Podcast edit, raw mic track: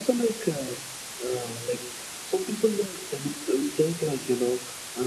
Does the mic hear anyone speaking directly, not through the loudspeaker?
No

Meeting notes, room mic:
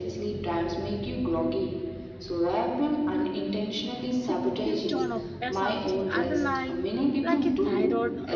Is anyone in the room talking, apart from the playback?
Yes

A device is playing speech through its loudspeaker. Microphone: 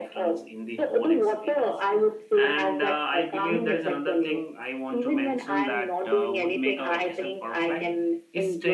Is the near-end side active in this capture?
Yes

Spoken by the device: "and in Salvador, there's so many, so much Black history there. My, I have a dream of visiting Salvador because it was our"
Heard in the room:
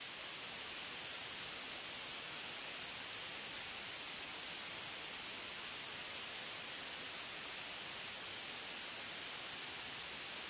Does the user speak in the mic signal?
No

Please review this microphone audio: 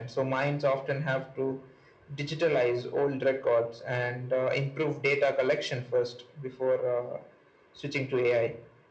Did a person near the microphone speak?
No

